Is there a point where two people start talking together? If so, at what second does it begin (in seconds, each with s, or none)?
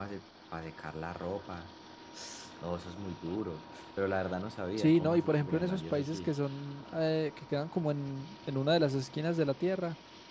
4.8 s